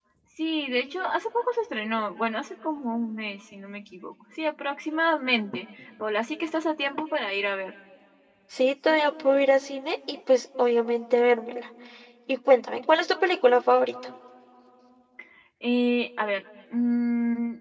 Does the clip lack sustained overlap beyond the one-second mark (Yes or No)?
Yes